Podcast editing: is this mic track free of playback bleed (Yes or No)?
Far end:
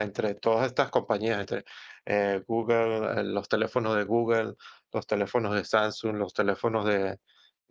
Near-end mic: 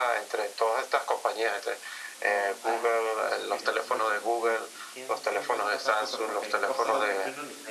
No